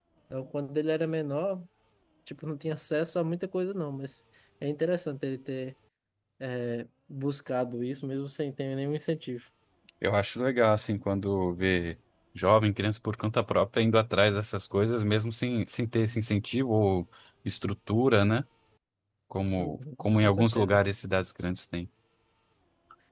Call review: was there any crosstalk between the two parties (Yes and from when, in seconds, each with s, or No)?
Yes, from 19.6 s